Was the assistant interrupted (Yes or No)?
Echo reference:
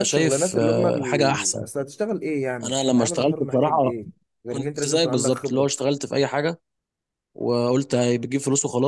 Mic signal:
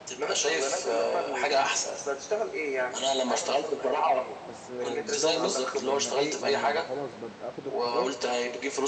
Yes